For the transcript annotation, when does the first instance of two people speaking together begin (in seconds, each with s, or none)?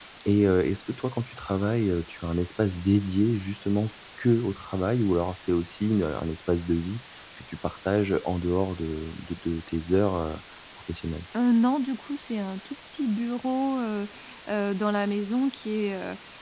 none